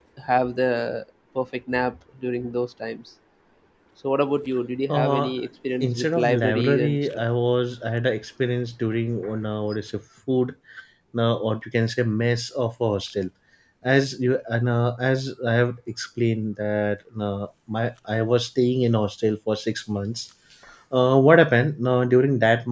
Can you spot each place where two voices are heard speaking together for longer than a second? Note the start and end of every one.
5.8-7.2

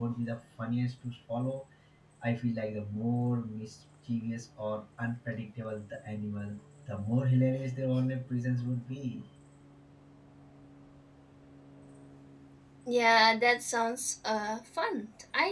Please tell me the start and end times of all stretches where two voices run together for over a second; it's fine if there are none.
none

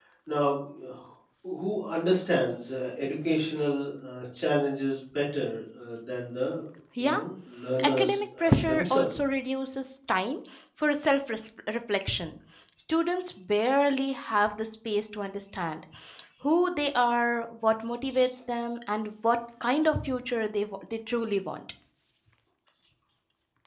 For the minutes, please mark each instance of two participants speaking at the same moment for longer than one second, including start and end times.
7.8-9.1

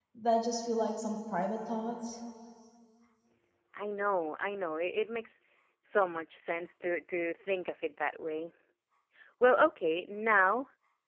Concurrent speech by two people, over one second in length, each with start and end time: none

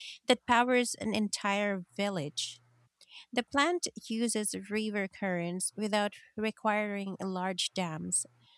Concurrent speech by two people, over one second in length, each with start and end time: none

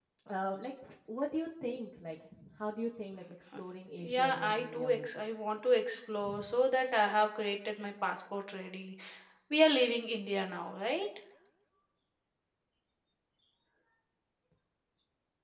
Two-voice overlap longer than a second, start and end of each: 4.0-5.2

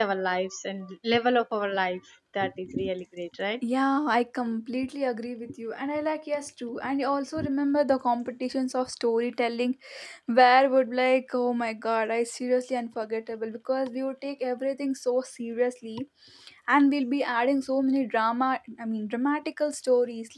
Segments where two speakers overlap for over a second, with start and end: none

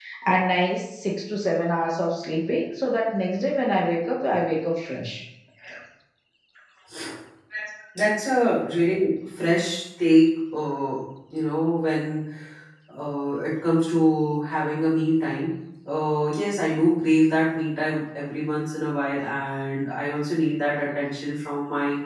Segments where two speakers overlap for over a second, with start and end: none

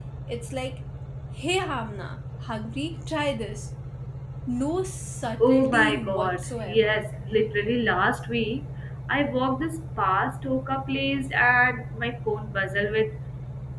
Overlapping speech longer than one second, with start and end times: 5.4-7.0

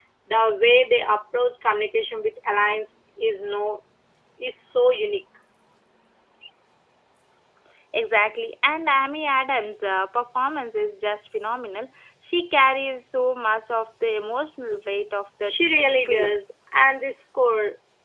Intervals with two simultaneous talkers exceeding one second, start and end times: none

